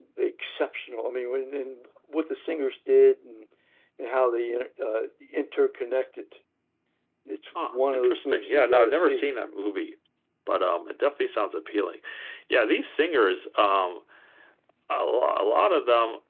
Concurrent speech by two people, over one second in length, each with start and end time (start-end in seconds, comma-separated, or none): 7.6-9.3